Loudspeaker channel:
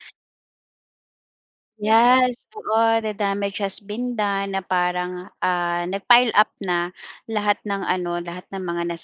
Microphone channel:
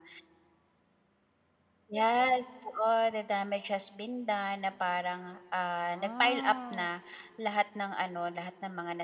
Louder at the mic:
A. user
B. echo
B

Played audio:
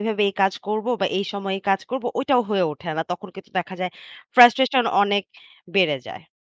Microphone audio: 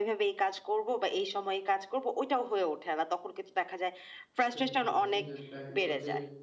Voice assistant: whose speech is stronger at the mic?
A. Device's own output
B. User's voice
A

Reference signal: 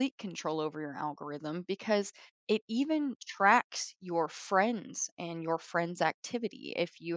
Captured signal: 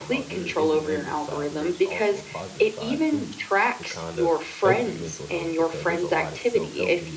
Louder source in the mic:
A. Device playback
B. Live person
A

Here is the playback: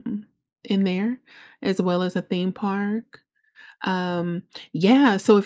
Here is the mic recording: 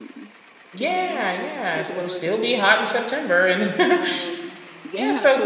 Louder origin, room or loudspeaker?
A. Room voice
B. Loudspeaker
A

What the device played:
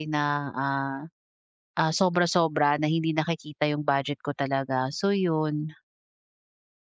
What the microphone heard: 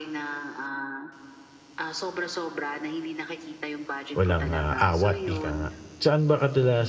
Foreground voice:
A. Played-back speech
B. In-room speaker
B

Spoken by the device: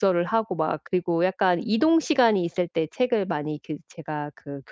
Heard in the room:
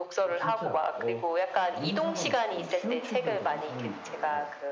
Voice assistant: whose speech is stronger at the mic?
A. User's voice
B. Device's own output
B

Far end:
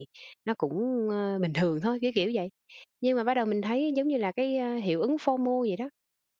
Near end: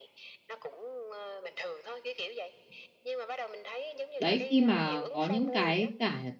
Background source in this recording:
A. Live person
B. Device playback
B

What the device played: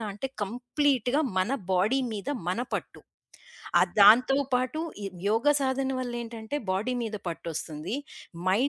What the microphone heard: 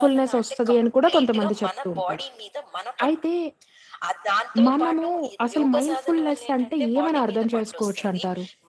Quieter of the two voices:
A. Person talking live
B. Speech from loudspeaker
B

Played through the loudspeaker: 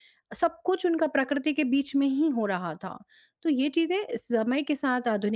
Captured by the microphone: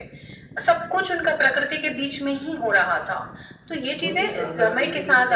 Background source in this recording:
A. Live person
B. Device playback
A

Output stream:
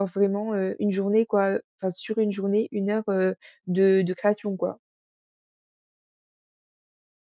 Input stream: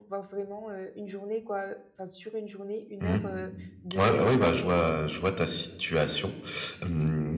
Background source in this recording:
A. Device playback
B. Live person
A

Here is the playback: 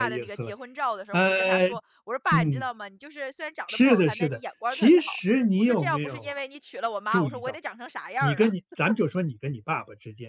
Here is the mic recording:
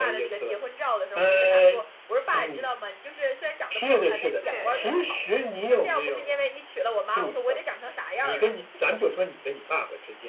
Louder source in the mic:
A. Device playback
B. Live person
A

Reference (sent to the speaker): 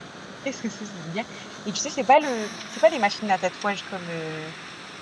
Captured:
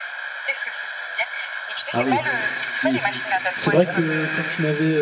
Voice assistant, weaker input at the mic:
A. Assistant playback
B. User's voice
A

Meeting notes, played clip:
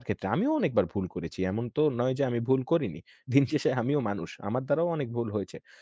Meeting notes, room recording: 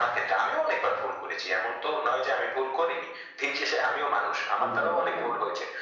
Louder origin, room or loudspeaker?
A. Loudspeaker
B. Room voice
A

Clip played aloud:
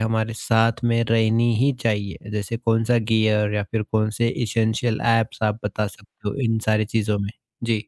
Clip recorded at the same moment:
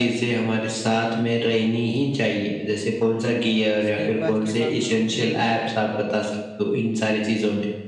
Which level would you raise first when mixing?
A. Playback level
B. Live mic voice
B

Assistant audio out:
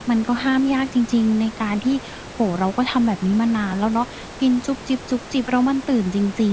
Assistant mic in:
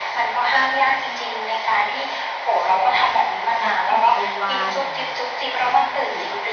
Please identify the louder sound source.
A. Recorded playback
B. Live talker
A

